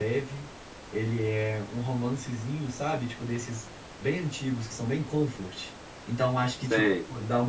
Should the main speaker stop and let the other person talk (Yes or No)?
No